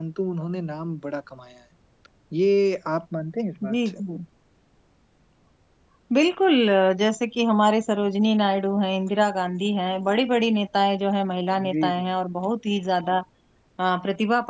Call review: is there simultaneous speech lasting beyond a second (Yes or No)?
No